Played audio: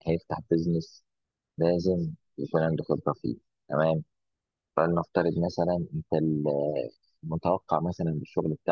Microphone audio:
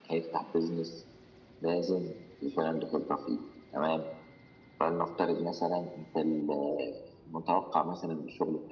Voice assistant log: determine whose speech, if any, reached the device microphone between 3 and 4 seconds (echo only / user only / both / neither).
echo only